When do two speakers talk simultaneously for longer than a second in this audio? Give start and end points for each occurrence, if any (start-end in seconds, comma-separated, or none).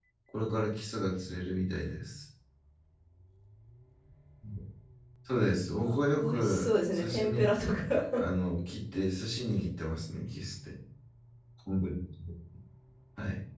5.8-7.5